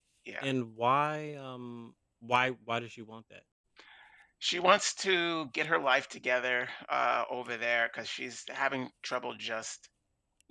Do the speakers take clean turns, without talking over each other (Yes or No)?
Yes